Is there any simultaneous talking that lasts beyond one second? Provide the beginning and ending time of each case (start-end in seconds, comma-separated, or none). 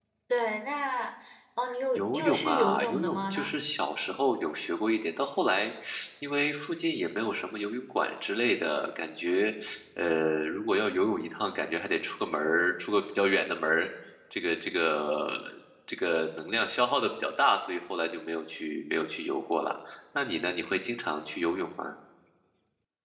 1.9-3.5